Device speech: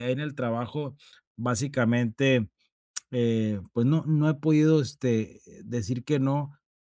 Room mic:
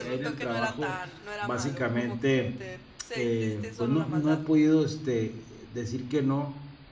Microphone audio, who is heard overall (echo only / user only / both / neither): both